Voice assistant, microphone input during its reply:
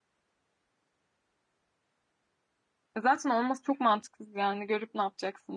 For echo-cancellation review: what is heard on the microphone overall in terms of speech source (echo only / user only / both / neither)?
user only